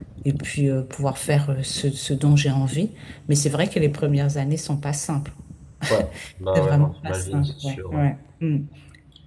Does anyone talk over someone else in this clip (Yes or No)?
Yes